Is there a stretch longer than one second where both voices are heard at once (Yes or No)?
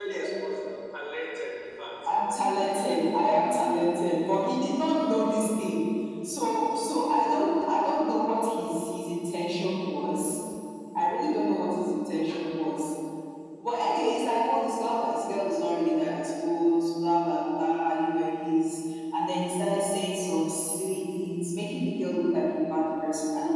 No